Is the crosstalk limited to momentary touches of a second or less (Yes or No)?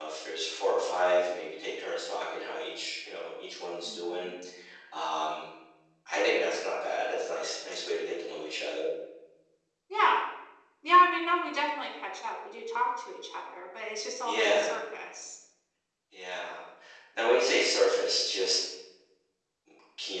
Yes